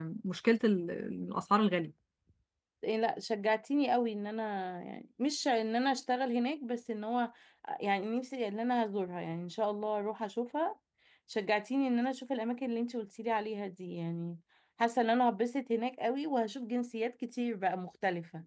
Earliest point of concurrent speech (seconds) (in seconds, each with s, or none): none